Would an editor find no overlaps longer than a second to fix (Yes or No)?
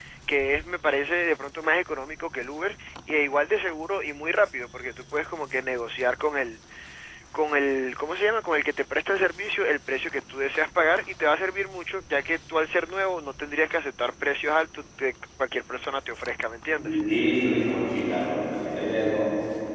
Yes